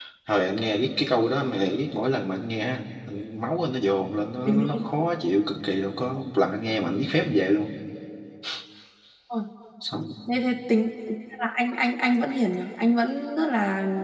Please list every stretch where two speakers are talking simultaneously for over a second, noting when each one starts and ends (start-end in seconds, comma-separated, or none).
none